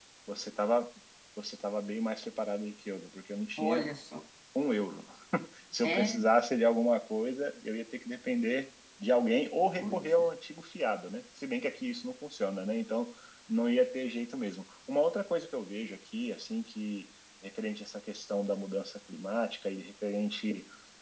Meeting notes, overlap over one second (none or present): none